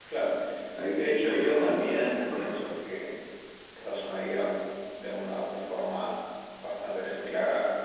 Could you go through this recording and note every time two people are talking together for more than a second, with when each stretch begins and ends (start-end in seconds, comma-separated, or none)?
0.9-2.7